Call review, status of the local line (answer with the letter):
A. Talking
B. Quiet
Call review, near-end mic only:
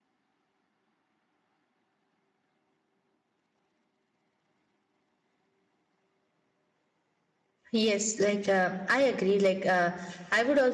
A